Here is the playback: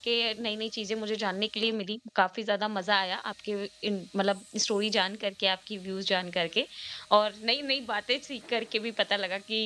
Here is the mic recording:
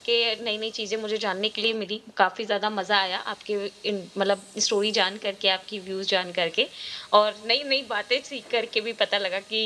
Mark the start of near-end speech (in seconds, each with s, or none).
none